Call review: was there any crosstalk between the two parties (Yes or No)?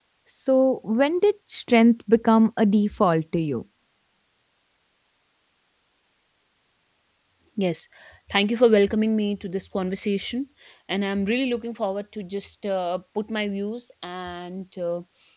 No